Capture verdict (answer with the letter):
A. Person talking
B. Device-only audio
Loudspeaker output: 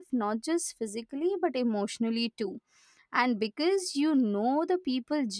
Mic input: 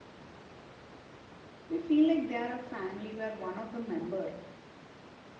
A